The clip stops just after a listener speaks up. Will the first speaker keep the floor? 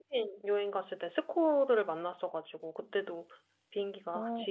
Yes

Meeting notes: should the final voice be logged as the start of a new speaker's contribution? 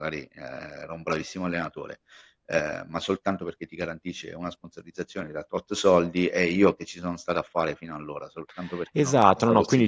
Yes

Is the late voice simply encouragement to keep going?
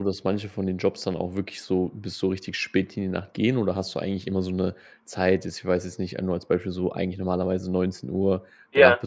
Yes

